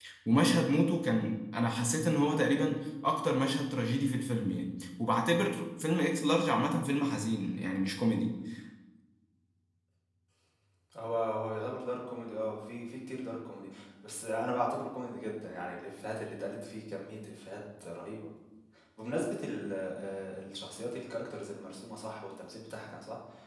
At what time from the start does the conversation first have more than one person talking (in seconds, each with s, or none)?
none